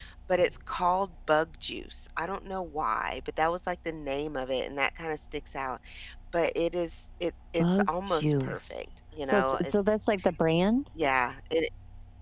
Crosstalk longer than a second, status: present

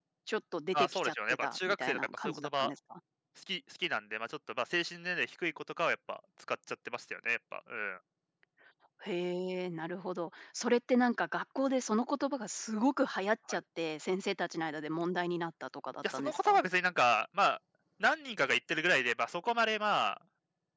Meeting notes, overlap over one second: present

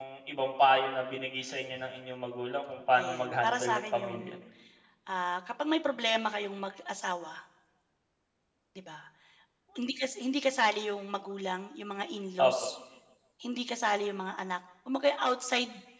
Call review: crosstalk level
present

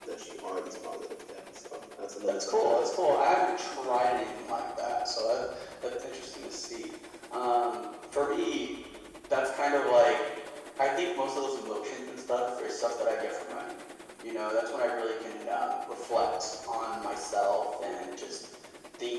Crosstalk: present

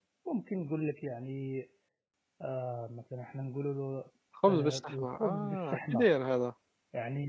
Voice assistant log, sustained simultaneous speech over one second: present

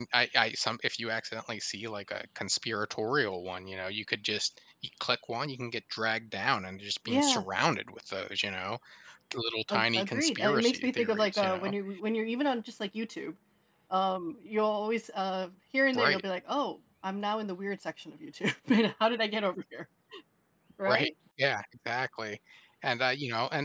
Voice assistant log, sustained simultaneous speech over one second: present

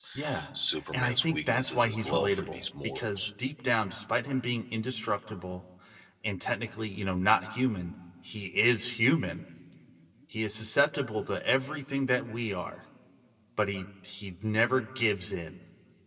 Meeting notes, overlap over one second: present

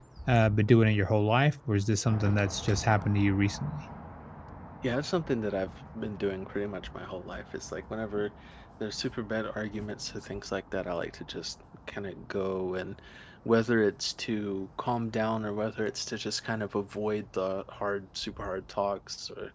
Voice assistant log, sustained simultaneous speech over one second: none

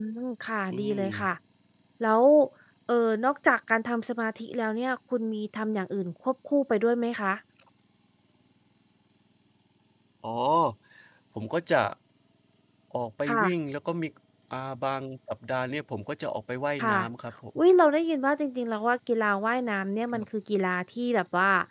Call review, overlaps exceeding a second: none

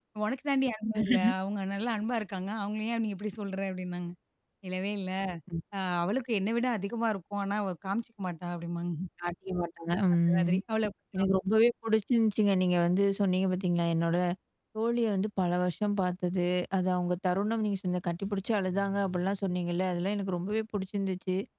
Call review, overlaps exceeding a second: none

